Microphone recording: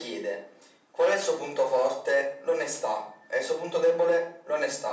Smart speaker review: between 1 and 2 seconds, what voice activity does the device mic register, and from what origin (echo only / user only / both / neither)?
echo only